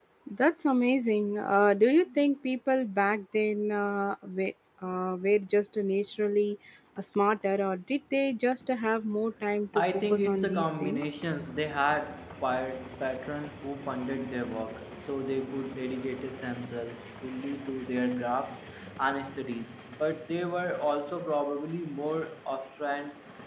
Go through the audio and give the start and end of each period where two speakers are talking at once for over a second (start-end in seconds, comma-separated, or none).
9.8-11.0